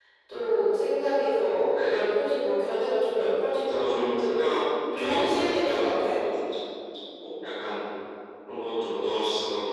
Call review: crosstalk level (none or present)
present